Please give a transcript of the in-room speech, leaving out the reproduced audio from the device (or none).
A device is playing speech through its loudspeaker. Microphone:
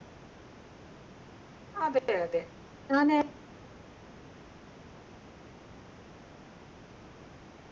അതെ യതെ ഞാന്